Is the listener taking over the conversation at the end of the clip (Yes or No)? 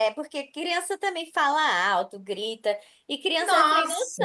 No